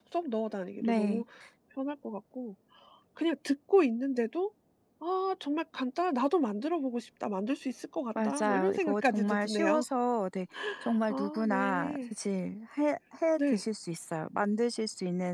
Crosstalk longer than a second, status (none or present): present